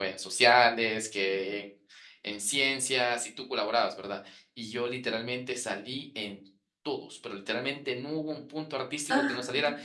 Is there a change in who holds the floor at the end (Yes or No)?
No